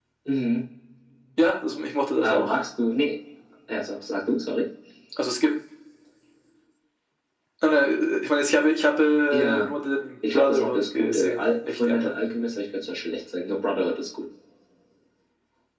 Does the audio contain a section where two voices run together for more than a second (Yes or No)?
Yes